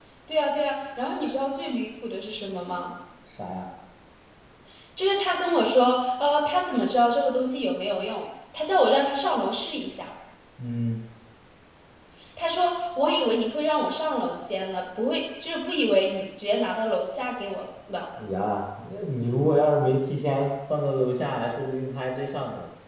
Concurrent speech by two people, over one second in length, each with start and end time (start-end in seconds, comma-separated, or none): none